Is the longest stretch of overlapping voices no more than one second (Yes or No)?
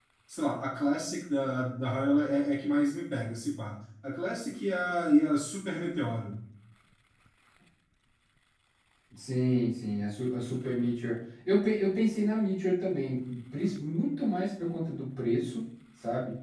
Yes